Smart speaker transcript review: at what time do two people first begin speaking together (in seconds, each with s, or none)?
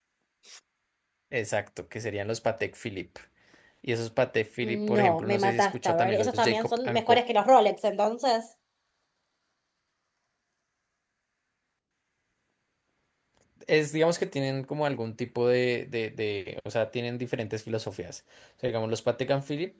4.6 s